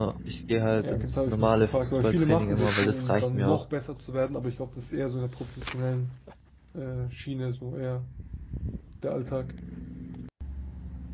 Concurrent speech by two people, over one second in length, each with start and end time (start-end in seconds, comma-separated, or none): 0.8-3.6